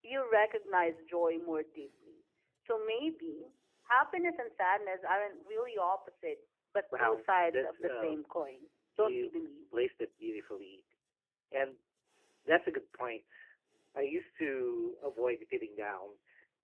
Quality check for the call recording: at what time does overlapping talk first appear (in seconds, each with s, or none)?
7.0 s